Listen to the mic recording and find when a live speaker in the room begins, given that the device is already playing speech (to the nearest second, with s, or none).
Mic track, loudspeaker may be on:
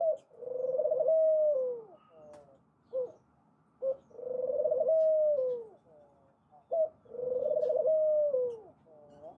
none